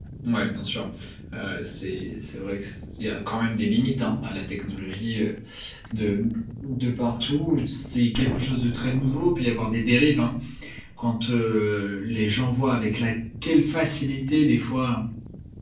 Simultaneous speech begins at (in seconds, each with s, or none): none